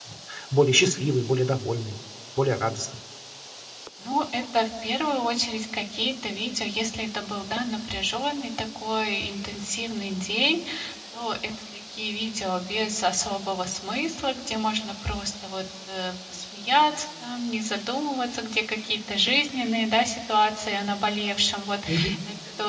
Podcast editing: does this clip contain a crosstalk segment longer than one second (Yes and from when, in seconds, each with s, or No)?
No